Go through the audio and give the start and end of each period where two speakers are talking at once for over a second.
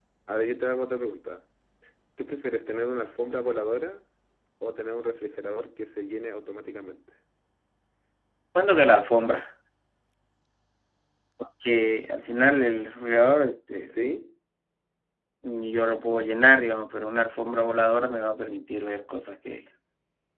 none

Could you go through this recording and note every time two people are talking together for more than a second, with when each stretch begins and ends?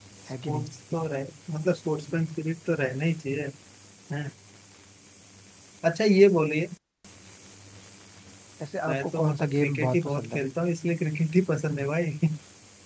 8.9-10.4

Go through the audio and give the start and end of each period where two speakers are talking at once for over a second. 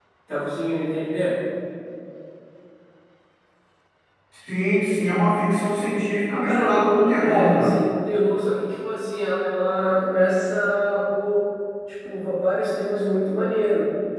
6.4-7.7

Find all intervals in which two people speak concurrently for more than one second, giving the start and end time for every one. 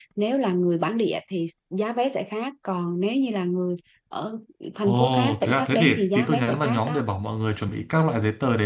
4.8-7.0

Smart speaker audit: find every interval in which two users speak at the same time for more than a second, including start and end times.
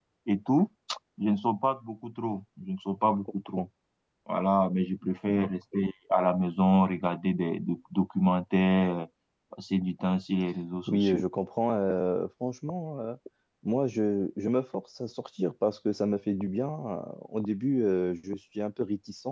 none

